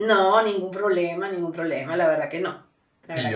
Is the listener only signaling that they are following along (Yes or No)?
No